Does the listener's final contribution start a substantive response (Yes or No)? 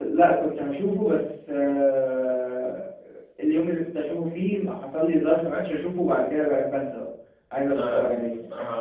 Yes